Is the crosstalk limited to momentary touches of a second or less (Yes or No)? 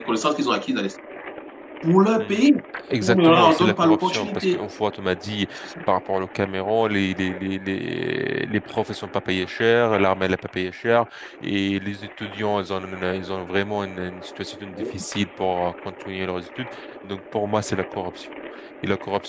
No